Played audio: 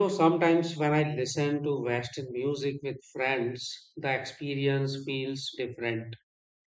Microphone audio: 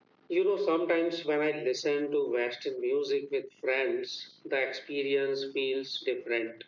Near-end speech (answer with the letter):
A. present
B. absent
B